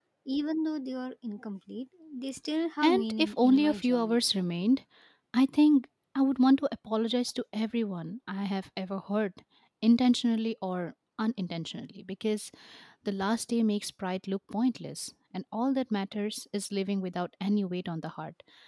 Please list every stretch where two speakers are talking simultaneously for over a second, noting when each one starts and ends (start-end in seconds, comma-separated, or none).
2.8-4.2